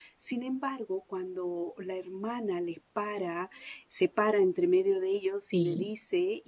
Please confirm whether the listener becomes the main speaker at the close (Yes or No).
No